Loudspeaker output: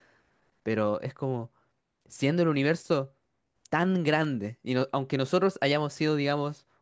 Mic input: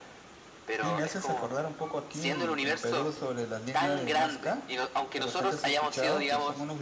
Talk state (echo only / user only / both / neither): both